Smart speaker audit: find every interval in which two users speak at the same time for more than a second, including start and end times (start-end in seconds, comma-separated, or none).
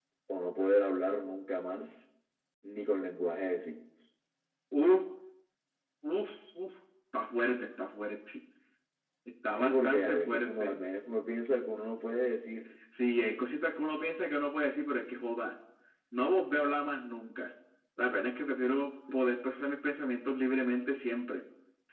9.5-10.7